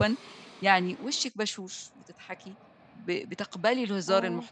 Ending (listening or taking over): listening